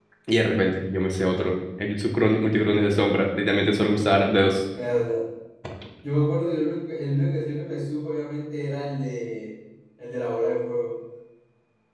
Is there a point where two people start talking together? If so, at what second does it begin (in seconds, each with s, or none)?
none